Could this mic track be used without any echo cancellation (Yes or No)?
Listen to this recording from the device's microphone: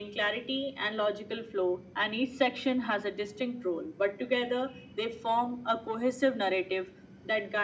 No